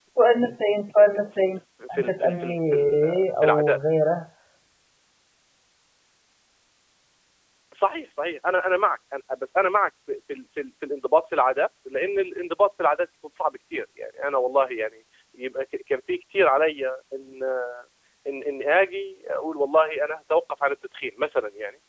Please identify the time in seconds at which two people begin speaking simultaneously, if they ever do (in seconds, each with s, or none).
1.8 s